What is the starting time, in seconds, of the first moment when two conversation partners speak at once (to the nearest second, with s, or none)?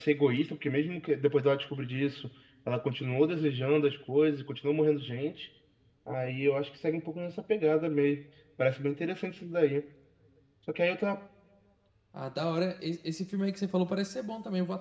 none